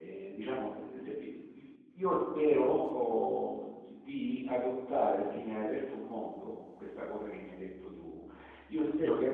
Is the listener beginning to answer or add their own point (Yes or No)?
No